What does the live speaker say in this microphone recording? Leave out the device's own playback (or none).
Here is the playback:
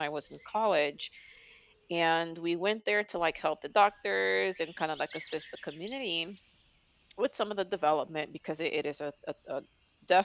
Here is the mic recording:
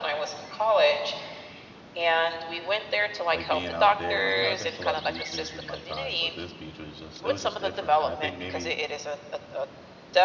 like, being out there and, like, you know, I've been to a lot of beaches in my time, but this beach was just it was just different, and I think maybe,